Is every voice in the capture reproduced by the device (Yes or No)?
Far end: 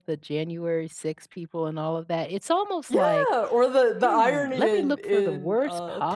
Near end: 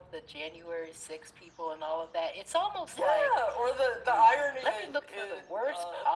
Yes